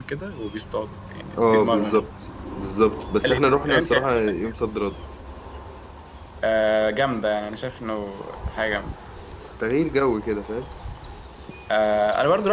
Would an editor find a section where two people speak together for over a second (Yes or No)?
Yes